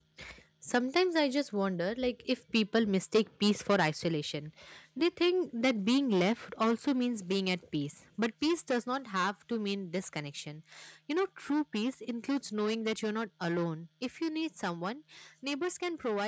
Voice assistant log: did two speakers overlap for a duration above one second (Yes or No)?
No